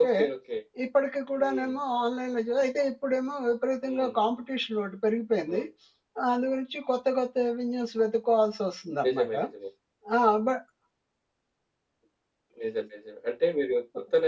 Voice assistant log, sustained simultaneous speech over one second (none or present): none